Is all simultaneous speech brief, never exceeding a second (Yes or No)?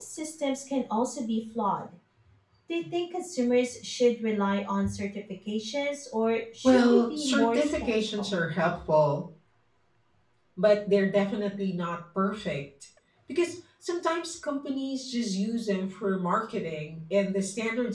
No